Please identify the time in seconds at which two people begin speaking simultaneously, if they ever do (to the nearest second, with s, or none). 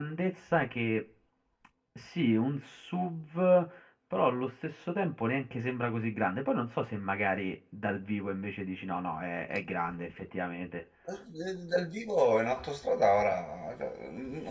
none